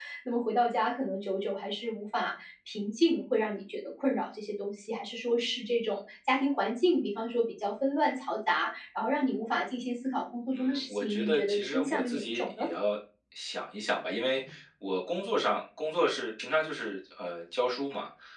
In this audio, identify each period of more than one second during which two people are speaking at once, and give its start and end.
10.5-12.7

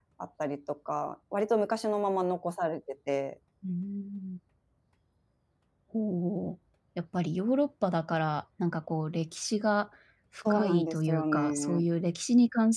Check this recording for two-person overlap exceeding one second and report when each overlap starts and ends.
10.5-11.8

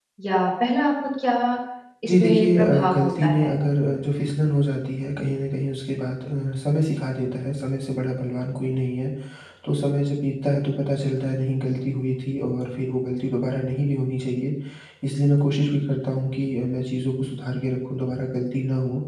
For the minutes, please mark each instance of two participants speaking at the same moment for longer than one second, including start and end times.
2.1-3.5

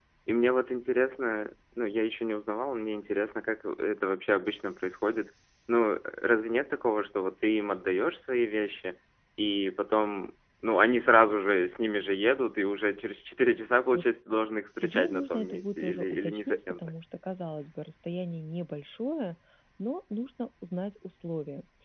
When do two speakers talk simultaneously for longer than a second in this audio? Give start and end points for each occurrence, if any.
14.8-16.9

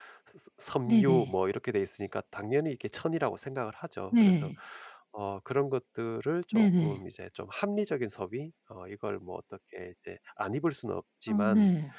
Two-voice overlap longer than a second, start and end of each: none

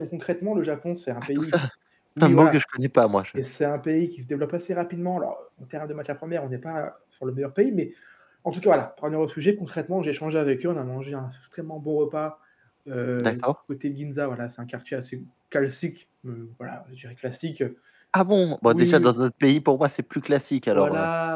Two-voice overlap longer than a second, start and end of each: none

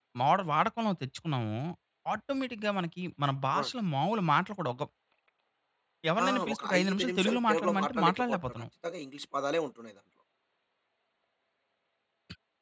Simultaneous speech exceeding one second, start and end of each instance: 6.2-8.6

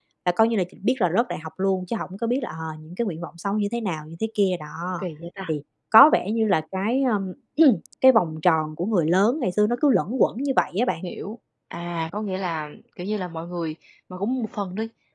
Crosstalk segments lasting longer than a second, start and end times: none

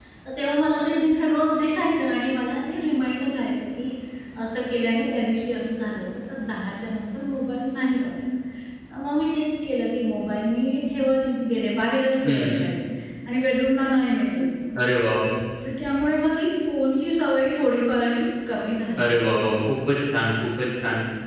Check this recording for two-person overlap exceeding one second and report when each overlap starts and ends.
none

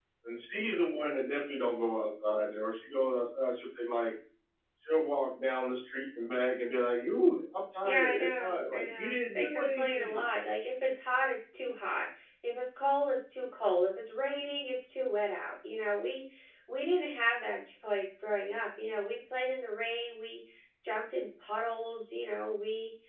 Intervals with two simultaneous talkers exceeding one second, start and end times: 7.8-10.2

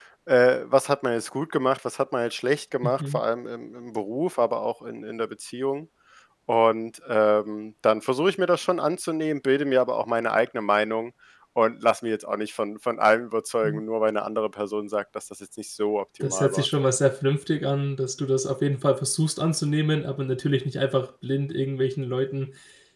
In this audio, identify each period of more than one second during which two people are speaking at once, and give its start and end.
none

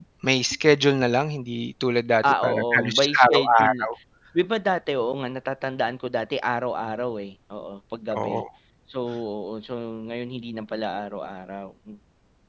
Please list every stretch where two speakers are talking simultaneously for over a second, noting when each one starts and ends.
2.2-3.9

